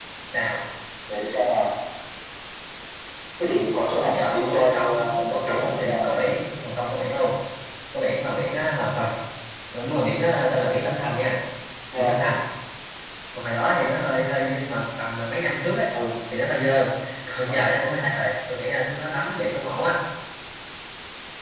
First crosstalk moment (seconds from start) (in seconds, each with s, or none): 4.0 s